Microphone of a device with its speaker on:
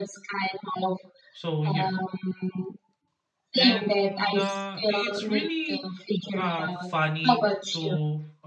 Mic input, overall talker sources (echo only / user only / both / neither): both